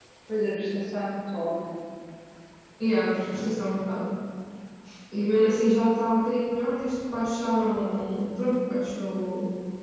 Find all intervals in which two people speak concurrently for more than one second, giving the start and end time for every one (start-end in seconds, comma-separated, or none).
none